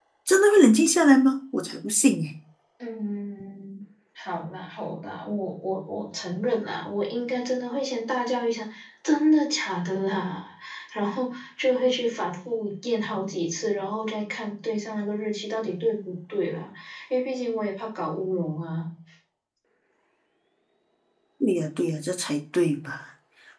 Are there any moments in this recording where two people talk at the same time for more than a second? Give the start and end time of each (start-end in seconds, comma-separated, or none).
none